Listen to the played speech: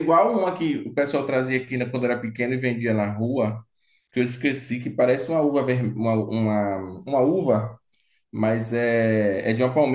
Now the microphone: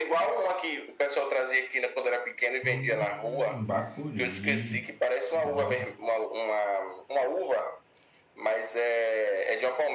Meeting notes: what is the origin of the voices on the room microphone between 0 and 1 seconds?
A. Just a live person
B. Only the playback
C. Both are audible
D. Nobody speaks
B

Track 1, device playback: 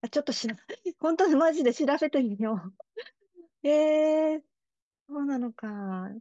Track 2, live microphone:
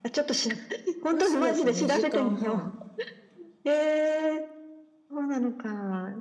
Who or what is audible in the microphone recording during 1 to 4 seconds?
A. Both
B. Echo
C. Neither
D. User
A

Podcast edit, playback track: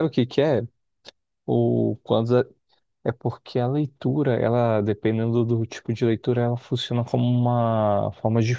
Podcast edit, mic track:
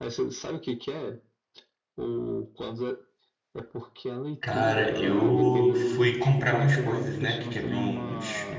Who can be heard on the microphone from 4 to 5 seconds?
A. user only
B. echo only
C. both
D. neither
C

